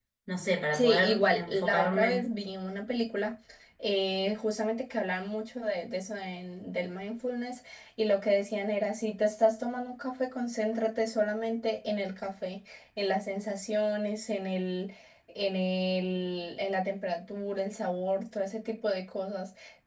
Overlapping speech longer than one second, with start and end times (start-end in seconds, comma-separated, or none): 0.7-2.2